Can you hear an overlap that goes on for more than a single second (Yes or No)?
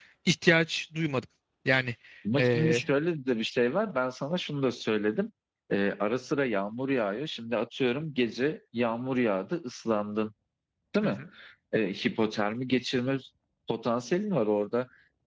No